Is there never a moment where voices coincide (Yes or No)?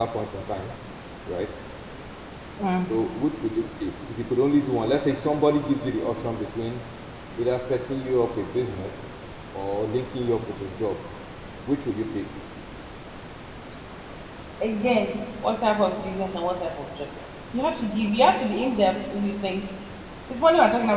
Yes